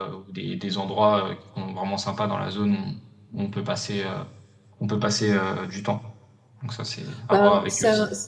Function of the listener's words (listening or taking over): taking over